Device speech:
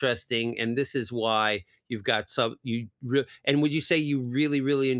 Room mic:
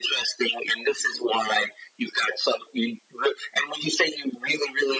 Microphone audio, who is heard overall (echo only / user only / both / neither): echo only